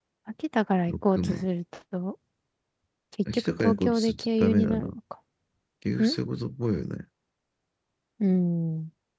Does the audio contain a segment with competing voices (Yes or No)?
Yes